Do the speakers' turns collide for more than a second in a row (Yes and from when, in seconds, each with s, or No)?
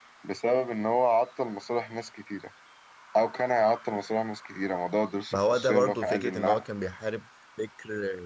Yes, from 5.3 s